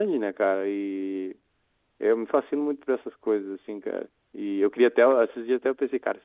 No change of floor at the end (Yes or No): Yes